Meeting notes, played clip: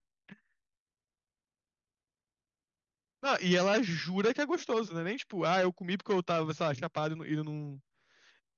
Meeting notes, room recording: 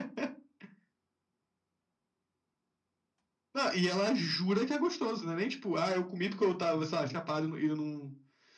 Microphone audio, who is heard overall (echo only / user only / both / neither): echo only